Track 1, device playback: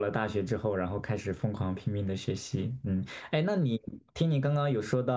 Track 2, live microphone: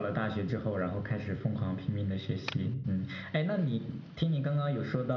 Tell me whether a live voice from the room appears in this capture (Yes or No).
No